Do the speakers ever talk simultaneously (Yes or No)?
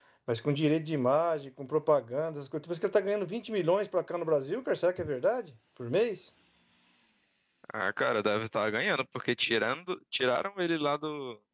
No